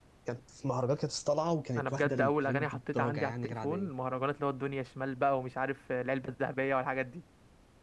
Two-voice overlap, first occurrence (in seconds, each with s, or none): 1.8 s